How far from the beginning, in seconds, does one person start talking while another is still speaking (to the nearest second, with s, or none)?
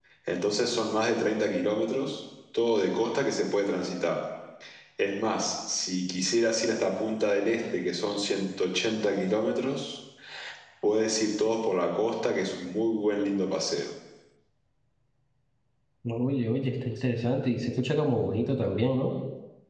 none